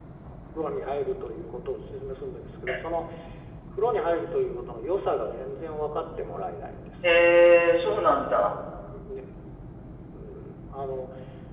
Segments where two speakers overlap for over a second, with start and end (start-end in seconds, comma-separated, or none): none